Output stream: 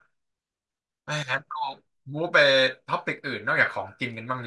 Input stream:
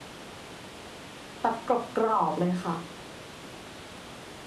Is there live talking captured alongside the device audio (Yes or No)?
Yes